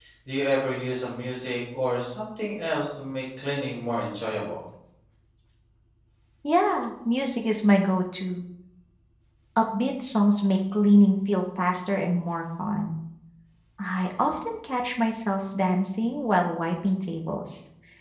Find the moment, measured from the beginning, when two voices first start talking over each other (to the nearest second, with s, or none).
none